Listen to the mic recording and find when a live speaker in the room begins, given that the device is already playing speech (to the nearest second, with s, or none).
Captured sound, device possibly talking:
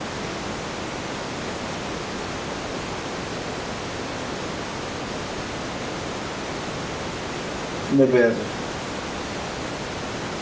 8 s